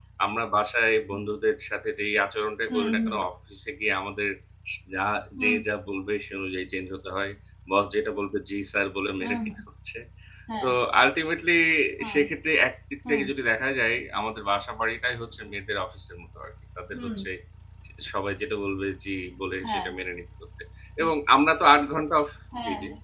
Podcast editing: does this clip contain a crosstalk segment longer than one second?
No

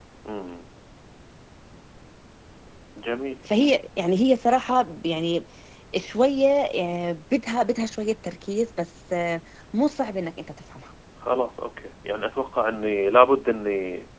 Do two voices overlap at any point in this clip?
No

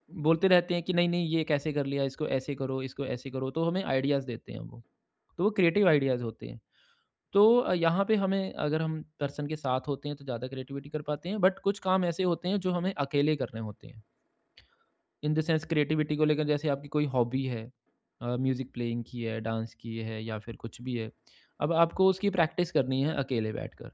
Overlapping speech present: No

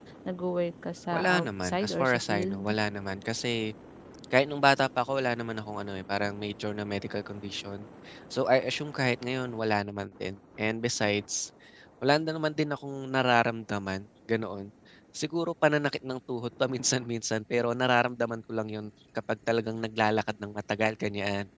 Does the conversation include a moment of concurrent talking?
Yes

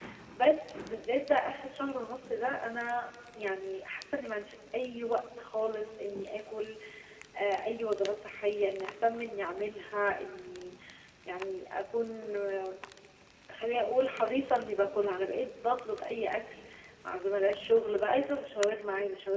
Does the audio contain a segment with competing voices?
No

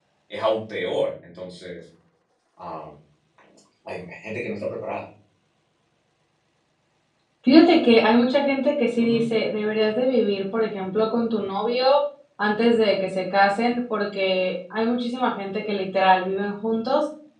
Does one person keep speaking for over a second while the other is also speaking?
No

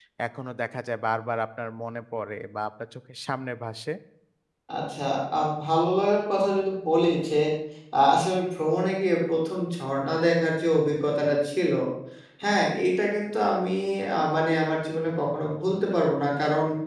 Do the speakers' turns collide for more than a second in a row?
No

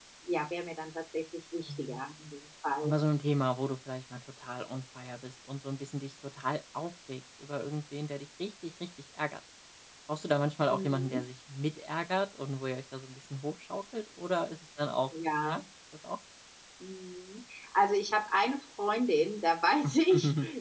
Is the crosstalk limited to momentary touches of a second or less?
Yes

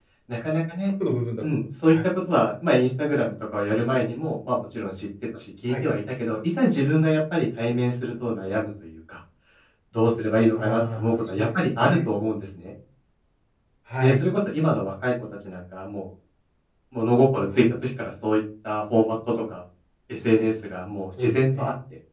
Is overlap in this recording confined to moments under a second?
No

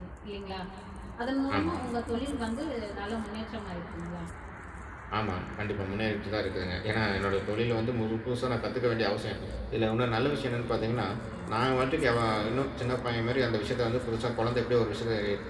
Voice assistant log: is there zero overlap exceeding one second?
Yes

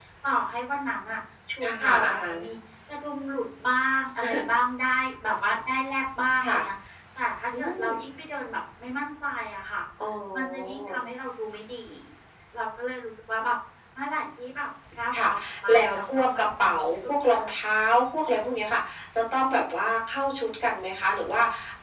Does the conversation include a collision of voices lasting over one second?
Yes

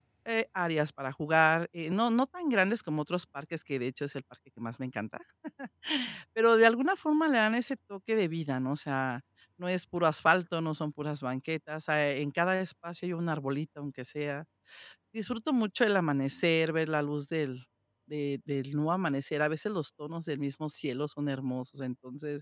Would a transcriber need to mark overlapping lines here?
No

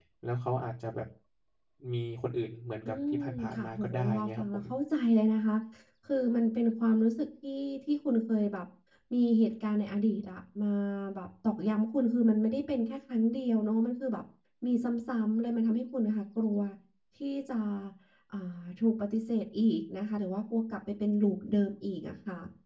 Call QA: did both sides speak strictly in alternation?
No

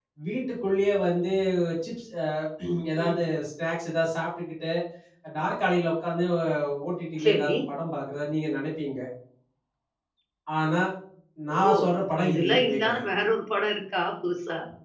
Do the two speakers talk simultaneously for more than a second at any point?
Yes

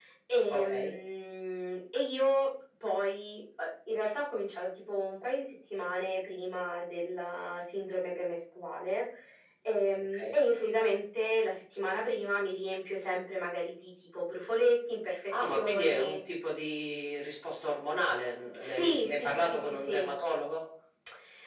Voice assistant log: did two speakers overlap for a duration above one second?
Yes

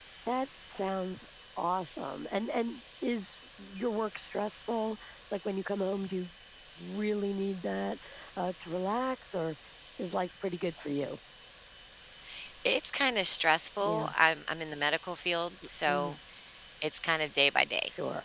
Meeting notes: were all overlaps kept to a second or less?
Yes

